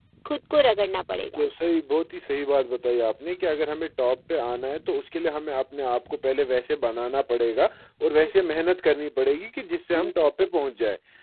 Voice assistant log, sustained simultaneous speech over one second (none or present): none